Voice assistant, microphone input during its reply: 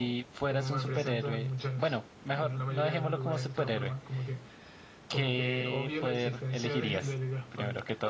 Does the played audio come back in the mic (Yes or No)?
Yes